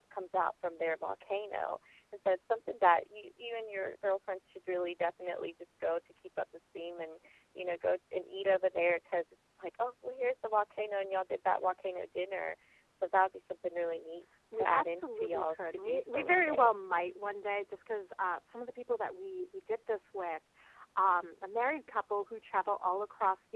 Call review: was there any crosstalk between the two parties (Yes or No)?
Yes